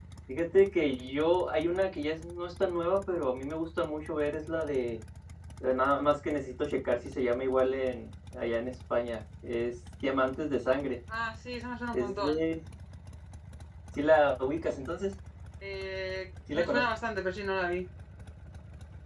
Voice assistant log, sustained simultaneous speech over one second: none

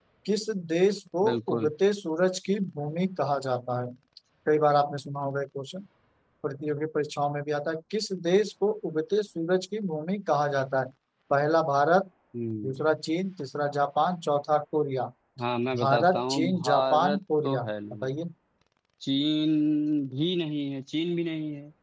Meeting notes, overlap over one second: present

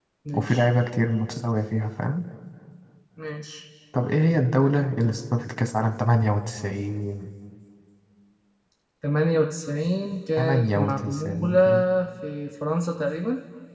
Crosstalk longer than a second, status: present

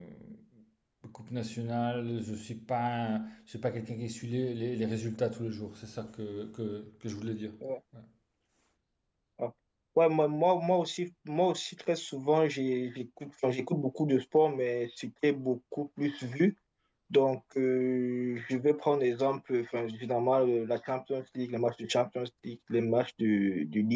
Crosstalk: none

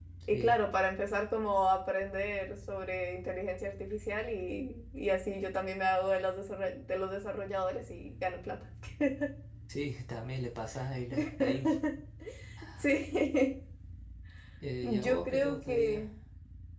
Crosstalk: present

